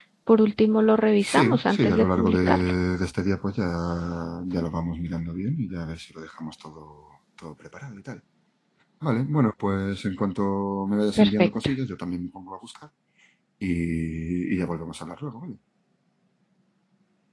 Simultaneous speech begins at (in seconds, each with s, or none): 1.2 s